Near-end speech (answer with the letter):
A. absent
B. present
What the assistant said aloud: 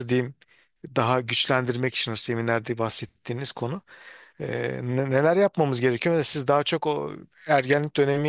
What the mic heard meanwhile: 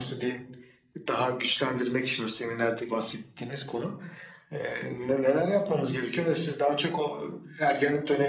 A